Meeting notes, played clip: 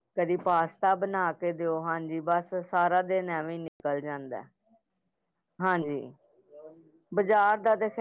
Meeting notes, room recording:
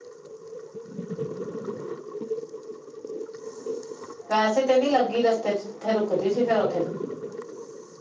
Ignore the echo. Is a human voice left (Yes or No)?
Yes